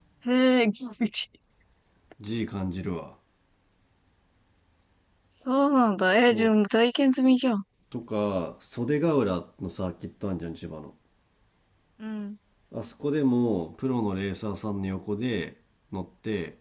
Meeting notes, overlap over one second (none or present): none